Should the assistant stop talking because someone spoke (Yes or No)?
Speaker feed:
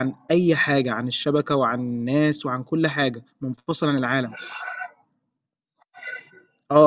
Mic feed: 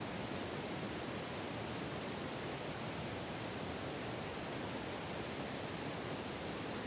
No